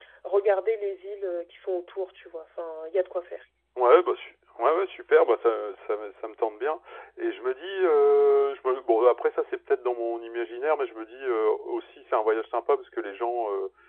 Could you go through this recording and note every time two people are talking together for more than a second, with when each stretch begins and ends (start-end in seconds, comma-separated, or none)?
none